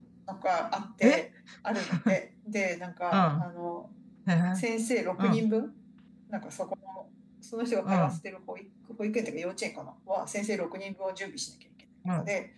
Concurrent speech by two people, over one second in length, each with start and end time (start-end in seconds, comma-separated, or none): none